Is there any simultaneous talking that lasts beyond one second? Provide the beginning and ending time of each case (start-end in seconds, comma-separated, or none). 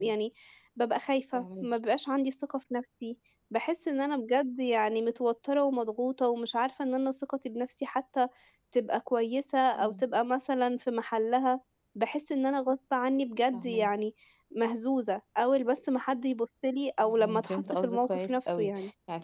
17.0-18.7